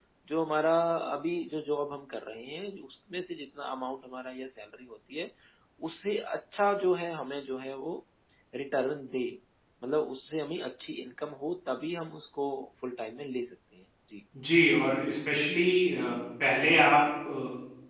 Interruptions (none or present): none